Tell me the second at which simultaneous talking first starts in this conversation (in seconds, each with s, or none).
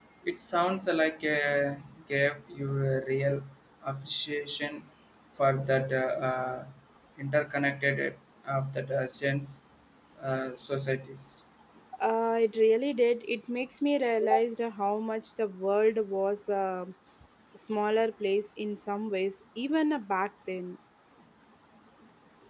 none